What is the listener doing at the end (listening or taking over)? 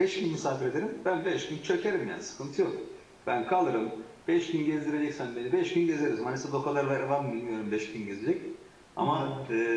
listening